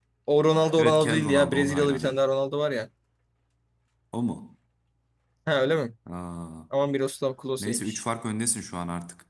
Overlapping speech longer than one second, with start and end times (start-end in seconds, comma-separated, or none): 0.8-2.2